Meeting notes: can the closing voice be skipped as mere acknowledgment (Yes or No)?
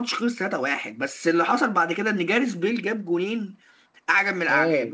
Yes